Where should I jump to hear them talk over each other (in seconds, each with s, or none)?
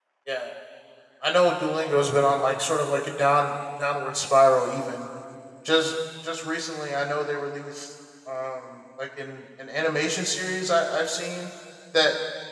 none